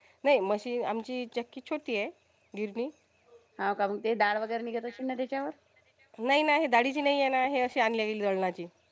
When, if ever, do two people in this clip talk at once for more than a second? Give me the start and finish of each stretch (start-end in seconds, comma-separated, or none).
none